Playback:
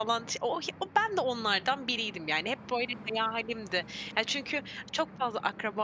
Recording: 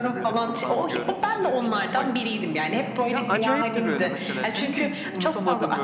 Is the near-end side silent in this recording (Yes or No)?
No